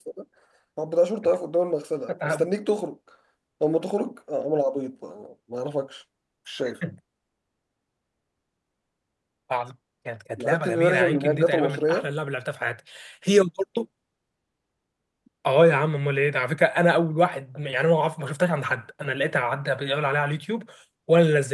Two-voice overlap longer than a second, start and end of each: 10.4-12.1

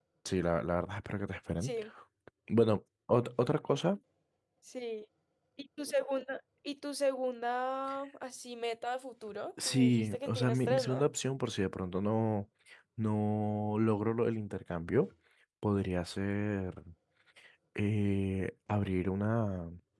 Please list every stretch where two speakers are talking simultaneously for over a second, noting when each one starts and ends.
9.6-11.1

